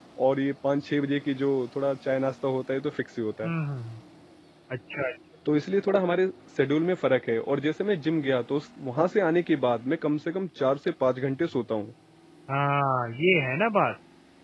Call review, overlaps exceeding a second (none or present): none